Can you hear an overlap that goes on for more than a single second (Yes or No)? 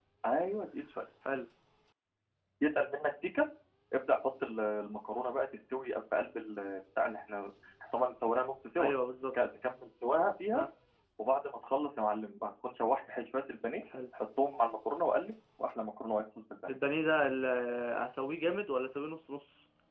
No